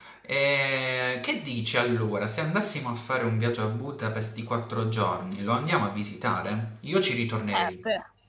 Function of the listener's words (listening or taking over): taking over